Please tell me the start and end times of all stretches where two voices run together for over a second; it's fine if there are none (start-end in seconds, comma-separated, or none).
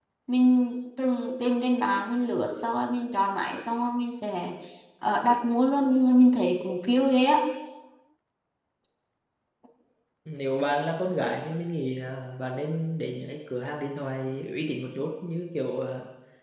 none